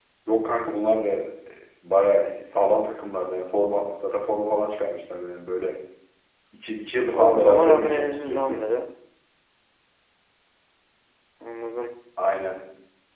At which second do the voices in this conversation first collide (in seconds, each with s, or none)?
7.1 s